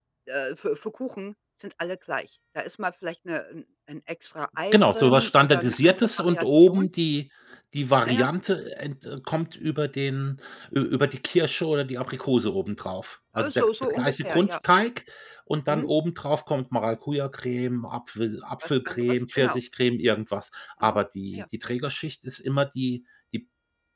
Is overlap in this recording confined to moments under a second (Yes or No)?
No